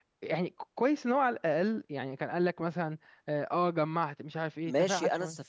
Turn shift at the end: Yes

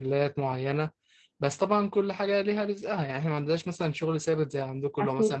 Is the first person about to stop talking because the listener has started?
No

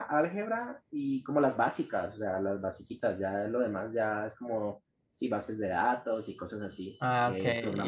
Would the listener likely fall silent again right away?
No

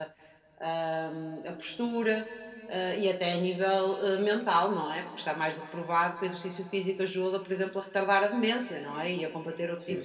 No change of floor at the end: No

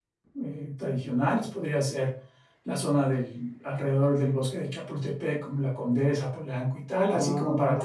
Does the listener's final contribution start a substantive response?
Yes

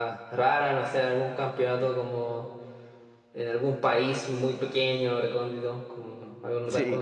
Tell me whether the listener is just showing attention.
No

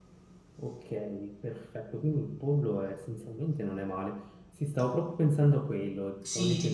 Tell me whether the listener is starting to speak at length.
Yes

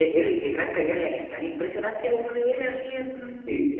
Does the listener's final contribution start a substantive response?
Yes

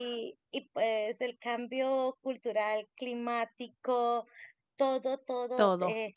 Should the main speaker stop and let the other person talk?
No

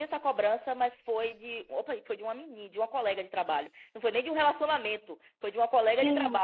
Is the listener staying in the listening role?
Yes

